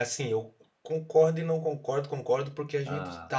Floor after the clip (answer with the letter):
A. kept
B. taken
A